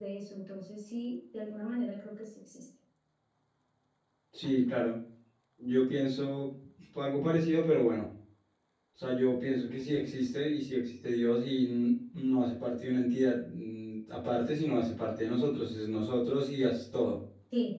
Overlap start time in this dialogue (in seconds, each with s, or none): none